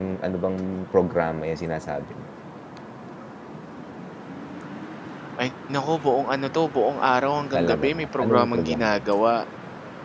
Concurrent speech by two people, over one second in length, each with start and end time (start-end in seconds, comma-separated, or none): 7.5-9.0